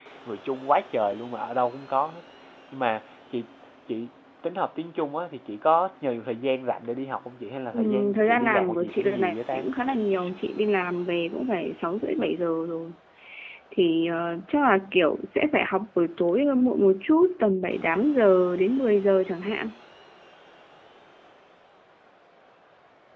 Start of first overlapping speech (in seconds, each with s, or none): 7.7 s